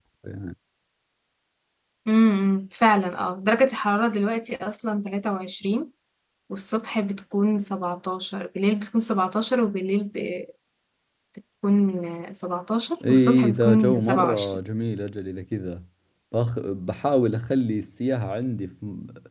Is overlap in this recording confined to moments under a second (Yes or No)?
No